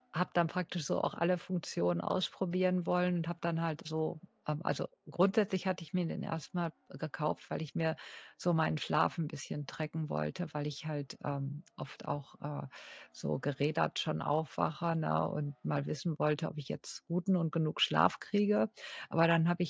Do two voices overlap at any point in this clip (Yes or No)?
No